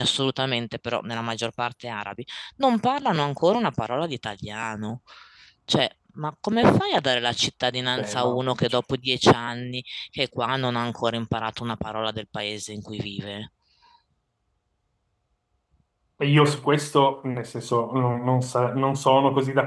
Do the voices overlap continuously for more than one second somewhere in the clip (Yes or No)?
No